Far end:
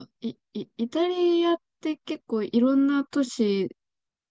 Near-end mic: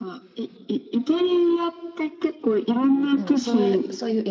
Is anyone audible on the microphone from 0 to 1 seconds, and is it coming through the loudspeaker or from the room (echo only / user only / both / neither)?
echo only